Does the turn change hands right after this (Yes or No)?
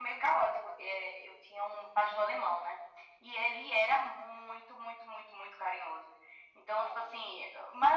No